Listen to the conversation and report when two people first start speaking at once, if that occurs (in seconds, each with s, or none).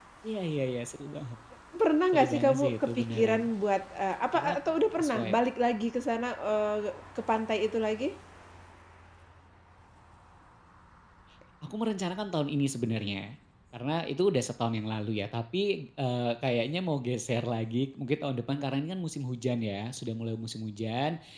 2.1 s